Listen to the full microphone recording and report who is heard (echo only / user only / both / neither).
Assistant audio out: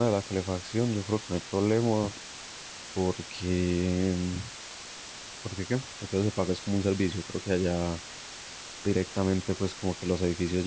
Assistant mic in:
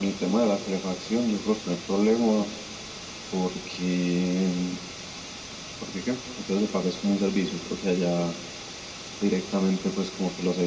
echo only